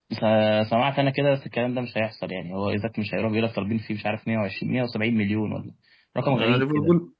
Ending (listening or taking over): taking over